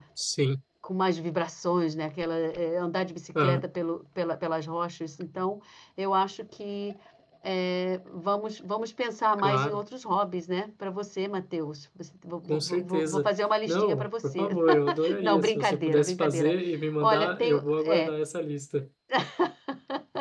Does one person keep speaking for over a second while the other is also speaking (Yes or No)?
Yes